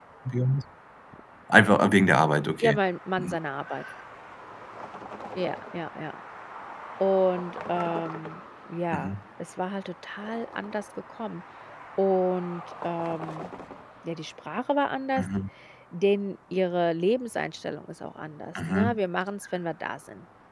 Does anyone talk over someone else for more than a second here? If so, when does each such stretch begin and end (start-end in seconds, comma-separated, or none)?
none